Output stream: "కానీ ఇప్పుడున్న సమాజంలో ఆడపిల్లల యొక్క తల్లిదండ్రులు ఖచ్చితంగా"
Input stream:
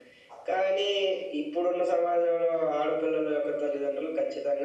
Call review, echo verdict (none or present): present